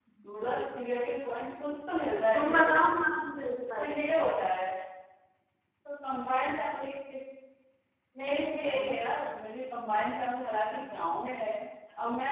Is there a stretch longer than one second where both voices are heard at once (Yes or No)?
No